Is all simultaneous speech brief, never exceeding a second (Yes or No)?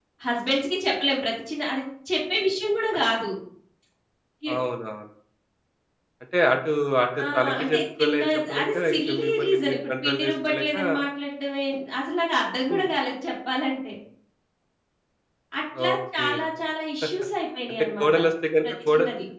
No